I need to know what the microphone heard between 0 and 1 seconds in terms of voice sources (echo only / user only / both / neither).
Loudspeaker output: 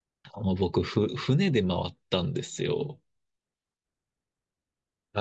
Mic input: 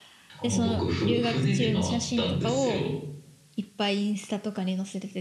both